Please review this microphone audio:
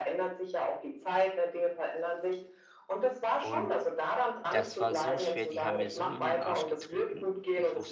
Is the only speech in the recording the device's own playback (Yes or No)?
No